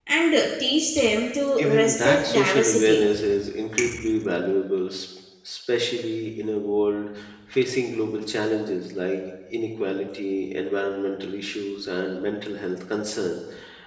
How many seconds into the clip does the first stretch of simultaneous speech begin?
1.6 s

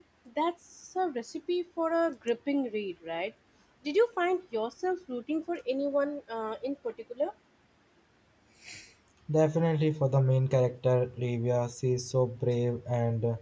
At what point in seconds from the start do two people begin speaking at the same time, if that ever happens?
none

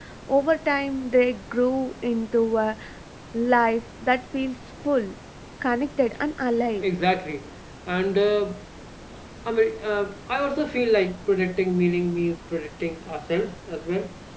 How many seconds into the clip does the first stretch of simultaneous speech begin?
none

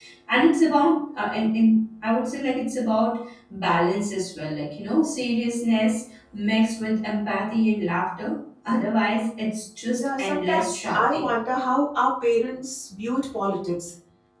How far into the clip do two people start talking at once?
9.9 s

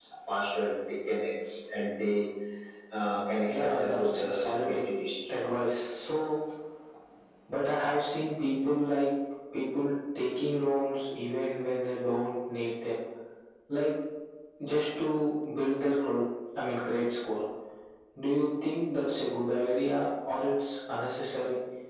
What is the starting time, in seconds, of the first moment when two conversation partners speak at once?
3.5 s

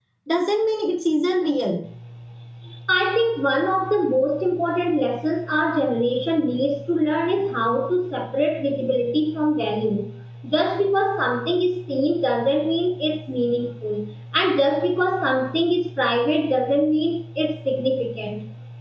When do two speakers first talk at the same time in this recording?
none

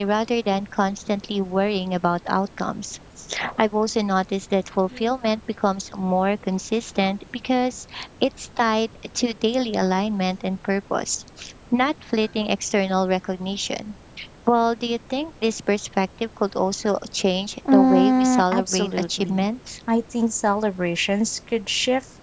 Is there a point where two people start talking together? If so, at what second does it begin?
17.6 s

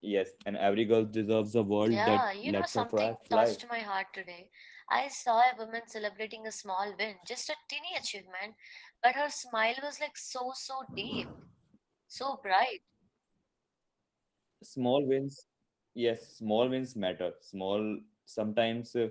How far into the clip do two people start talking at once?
1.9 s

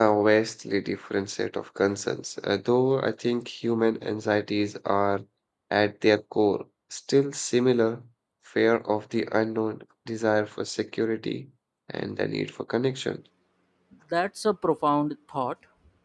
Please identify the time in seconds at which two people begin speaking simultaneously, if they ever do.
none

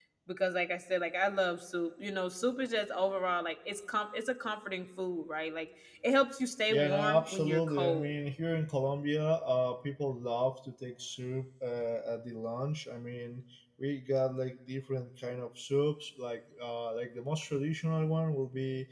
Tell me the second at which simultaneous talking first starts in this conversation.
6.7 s

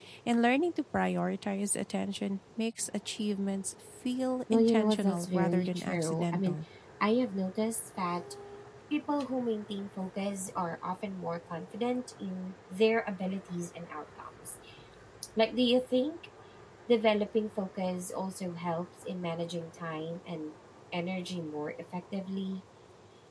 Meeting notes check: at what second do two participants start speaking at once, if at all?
4.5 s

